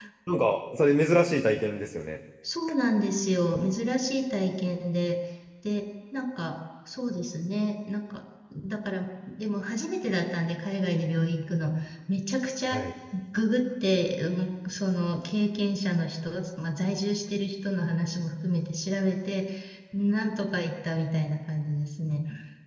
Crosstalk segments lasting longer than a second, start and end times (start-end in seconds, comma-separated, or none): none